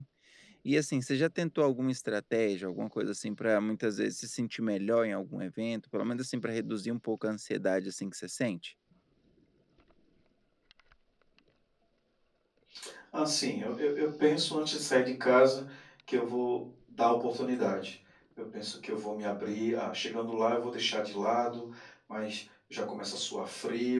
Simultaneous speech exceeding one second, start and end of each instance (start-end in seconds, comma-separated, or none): none